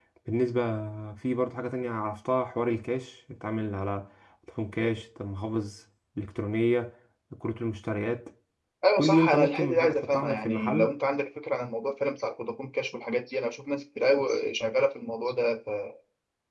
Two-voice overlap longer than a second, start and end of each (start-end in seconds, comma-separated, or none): 9.0-10.9